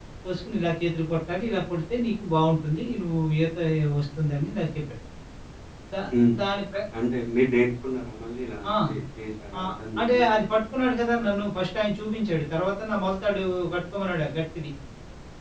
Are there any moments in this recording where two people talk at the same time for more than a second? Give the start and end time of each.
none

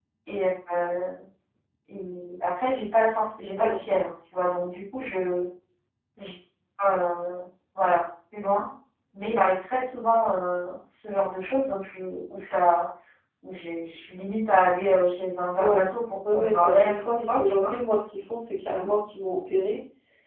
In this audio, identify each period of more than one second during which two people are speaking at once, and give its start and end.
16.3-17.8

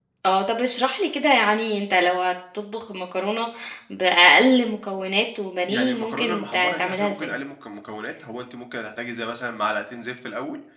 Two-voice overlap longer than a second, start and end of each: 5.7-7.3

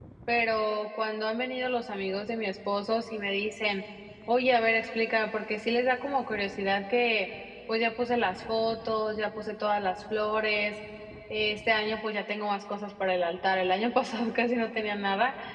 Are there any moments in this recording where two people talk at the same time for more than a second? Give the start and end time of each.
none

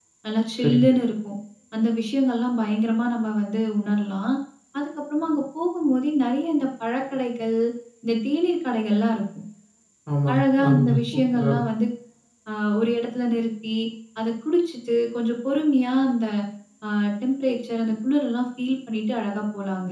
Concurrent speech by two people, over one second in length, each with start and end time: 10.3-11.6

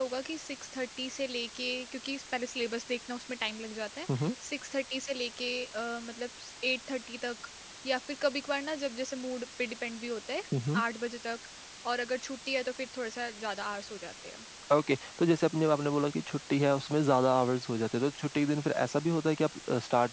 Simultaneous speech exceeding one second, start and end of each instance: none

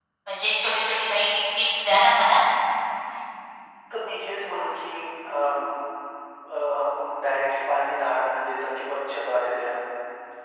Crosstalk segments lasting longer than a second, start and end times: none

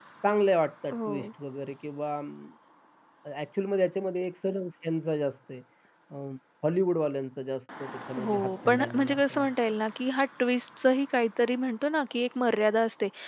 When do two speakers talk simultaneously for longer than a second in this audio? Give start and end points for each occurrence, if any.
8.2-9.5

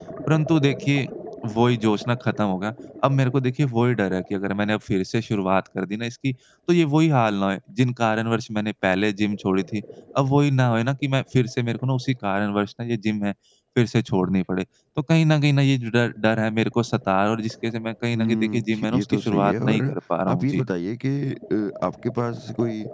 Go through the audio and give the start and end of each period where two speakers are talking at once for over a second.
18.1-19.8

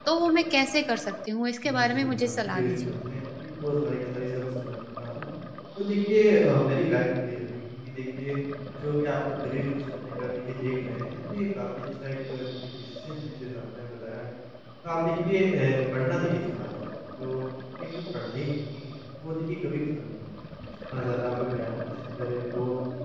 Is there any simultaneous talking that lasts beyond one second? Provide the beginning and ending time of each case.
1.6-2.9

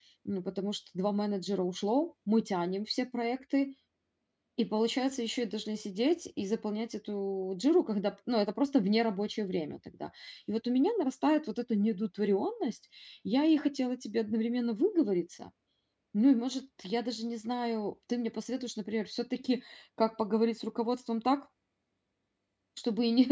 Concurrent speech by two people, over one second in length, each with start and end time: none

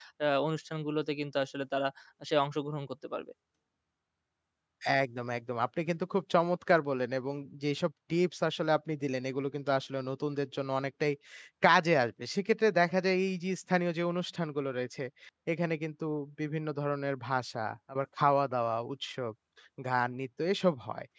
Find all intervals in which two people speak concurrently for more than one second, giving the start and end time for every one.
none

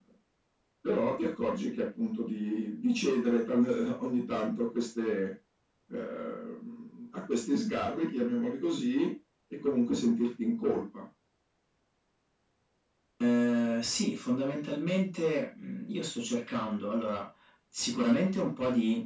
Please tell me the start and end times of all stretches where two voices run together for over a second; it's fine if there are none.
none

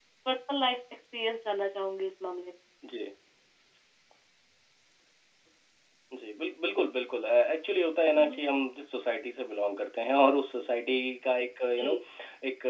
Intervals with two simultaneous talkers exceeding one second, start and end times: none

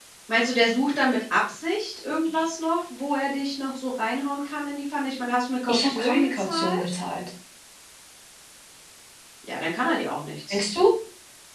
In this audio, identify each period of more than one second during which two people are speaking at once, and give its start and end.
5.7-6.9

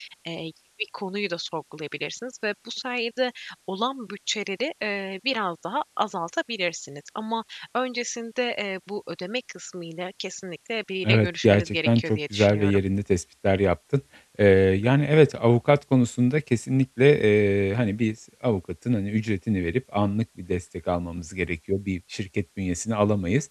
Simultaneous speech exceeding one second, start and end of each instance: 11.0-12.8

